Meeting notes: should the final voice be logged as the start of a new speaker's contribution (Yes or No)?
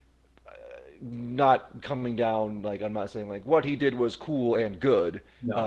No